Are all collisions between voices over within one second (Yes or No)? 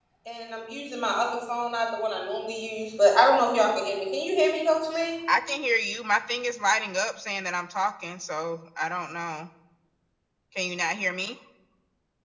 Yes